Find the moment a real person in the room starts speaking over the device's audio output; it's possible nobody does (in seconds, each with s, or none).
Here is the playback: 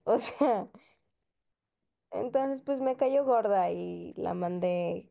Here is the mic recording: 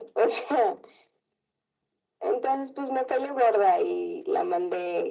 none